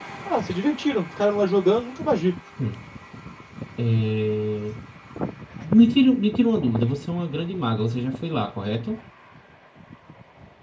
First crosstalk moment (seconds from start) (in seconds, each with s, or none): none